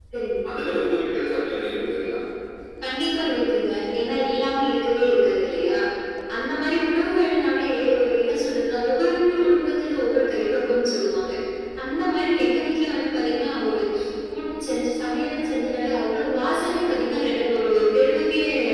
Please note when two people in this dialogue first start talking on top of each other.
none

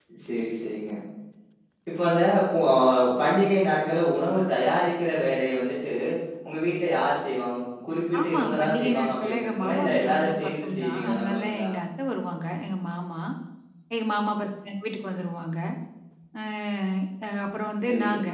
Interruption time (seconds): 8.2 s

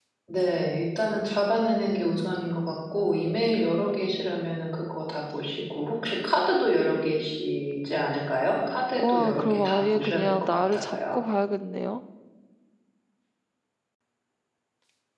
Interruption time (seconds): 9.0 s

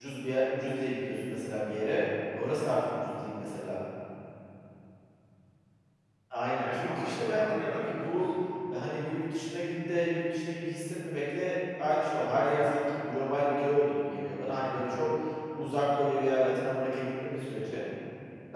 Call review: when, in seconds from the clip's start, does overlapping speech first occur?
6.6 s

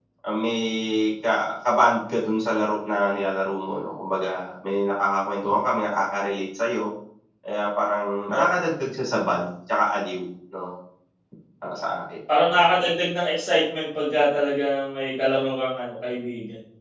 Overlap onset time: none

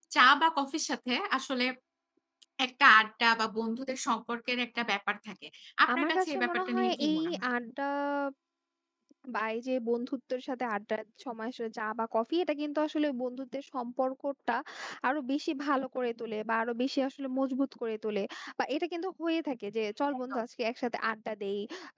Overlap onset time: 5.9 s

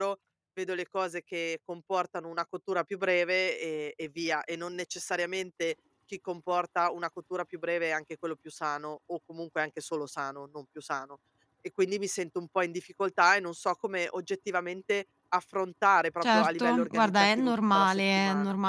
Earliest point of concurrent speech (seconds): 16.2 s

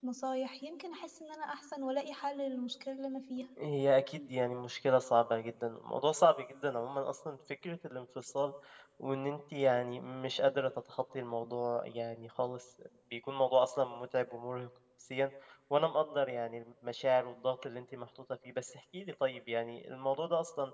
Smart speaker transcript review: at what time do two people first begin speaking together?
none

